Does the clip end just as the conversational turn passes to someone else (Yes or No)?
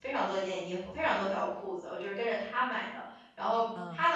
No